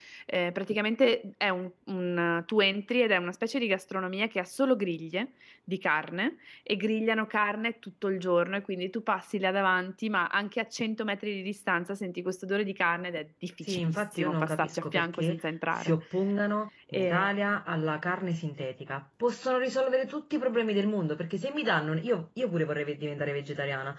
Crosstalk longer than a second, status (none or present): present